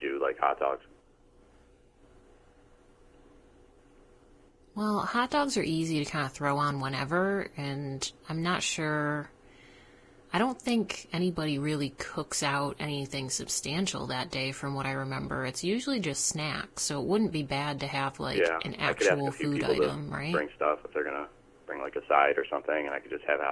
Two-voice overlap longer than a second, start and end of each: 18.3-20.0

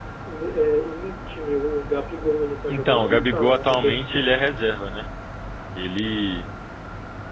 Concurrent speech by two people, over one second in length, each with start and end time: 2.7-4.0

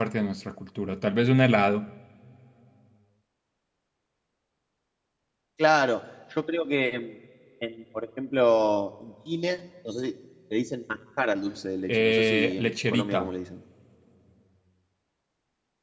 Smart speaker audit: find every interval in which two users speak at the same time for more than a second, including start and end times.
11.9-13.3

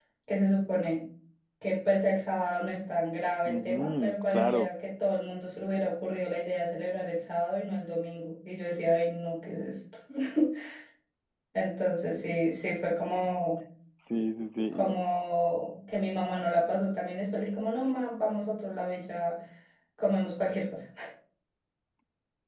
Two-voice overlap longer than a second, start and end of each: 3.5-4.7

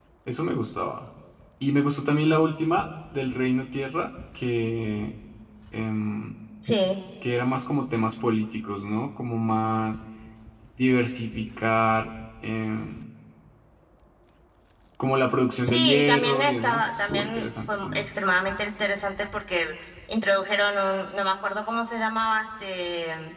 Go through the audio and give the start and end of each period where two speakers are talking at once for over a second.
15.6-18.0

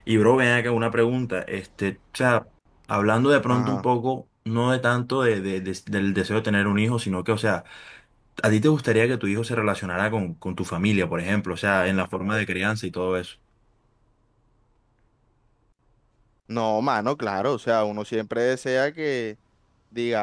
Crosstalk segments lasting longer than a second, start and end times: none

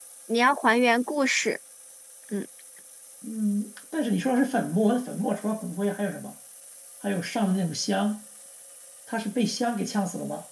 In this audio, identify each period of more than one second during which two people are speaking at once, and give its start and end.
none

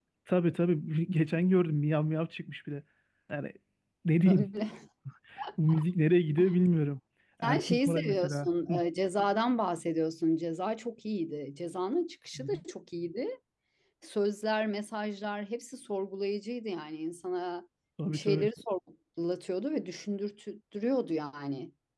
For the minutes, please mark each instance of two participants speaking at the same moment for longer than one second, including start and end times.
7.4-8.8

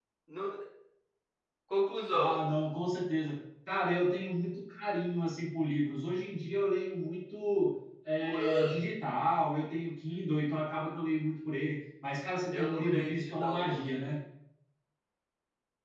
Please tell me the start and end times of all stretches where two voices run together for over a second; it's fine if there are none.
12.5-14.0

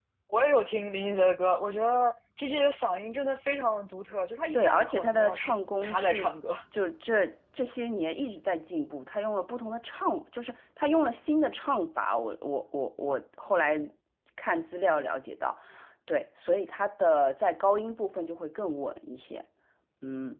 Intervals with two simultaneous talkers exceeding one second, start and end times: 4.5-6.3

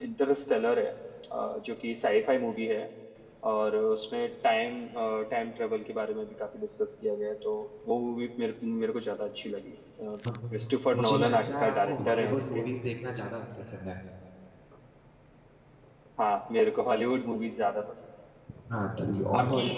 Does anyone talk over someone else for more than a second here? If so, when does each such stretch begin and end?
10.9-12.6

